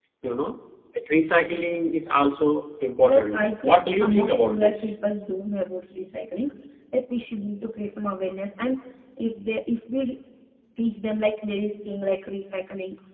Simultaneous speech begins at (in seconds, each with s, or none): 3.0 s